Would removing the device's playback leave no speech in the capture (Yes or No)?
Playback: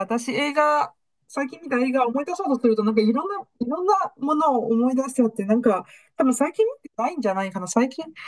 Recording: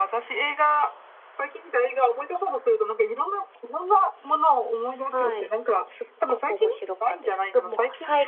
No